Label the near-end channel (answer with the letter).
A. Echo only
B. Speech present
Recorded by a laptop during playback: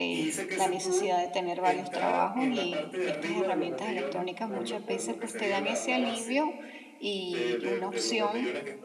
B